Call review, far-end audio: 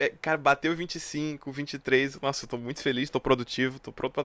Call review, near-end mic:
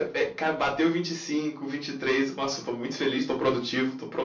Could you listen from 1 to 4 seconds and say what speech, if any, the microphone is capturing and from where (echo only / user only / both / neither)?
echo only